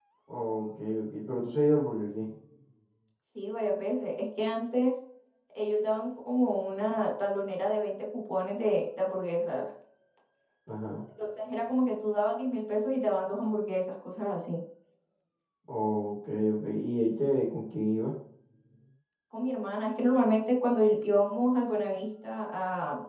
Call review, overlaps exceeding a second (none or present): none